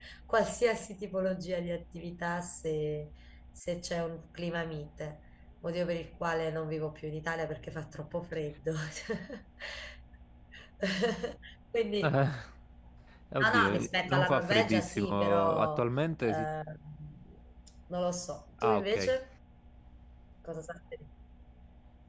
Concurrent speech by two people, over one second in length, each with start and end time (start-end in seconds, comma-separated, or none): 13.4-15.8